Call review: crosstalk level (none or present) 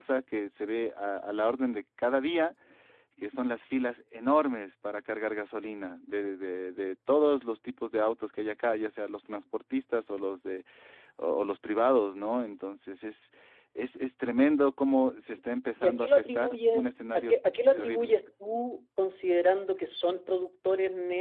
present